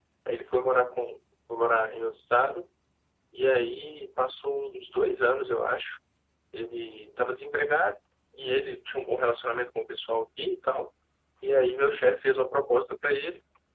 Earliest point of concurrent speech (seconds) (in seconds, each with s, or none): none